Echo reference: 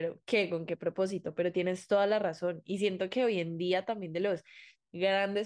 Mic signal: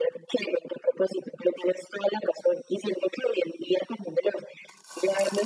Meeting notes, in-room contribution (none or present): none